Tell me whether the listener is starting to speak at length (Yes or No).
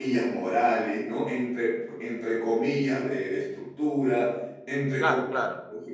No